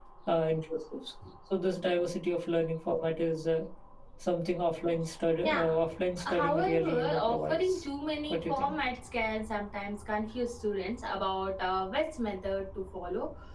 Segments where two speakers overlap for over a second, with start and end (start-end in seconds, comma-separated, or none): 6.2-7.8